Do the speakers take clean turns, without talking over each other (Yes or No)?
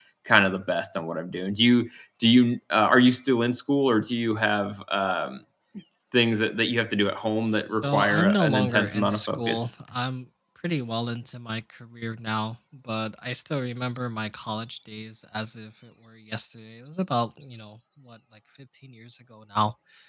No